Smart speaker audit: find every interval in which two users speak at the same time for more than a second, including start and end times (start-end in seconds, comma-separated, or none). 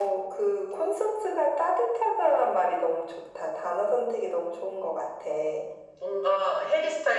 none